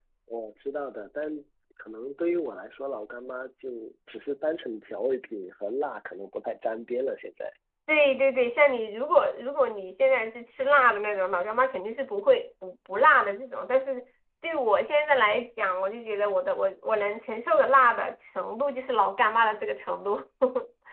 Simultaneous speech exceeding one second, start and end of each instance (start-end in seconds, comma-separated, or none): none